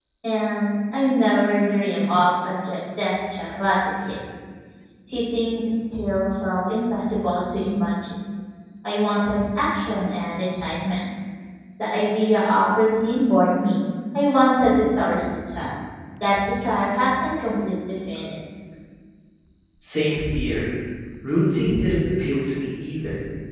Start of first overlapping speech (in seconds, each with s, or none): none